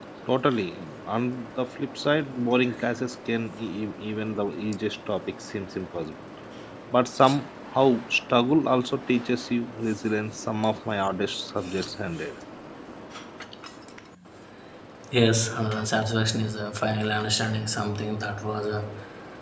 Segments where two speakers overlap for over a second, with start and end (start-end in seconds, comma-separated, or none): none